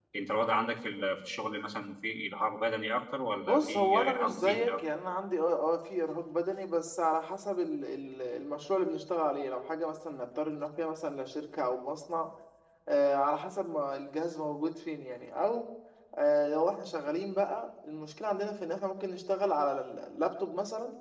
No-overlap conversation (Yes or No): No